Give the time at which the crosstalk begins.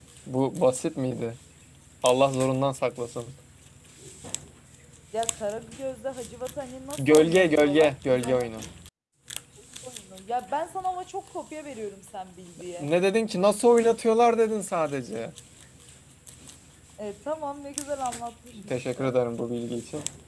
7.0 s

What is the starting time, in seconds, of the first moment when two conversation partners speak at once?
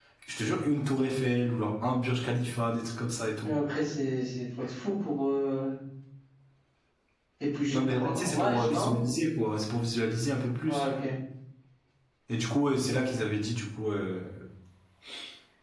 7.7 s

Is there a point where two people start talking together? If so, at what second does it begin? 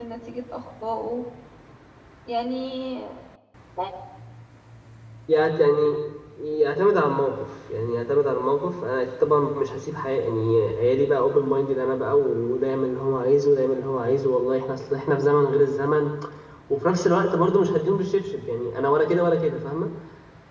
none

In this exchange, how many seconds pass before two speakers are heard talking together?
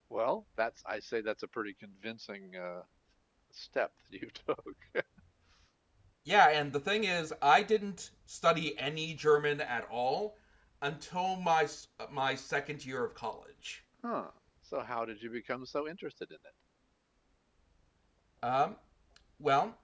none

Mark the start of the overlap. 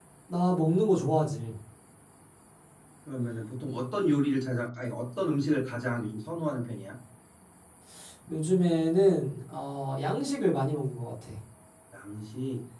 none

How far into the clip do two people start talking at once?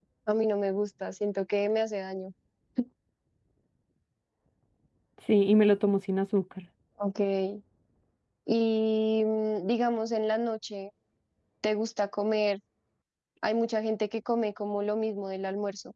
none

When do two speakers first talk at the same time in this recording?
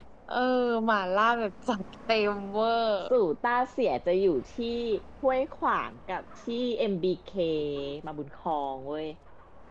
none

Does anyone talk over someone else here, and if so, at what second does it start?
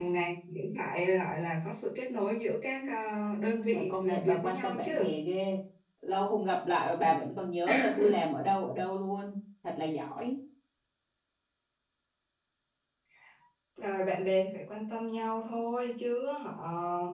3.7 s

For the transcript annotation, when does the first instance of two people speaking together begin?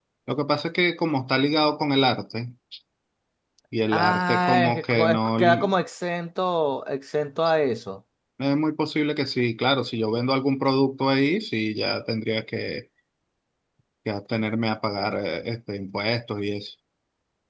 3.9 s

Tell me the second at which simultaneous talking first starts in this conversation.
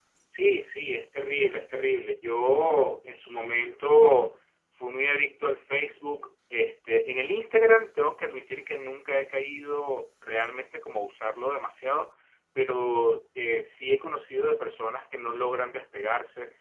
none

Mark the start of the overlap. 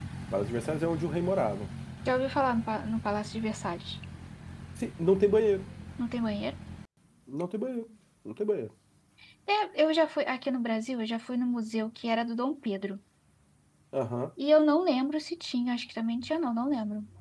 none

